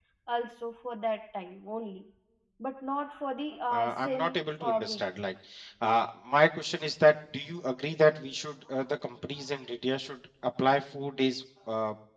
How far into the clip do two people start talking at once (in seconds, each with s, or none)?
3.7 s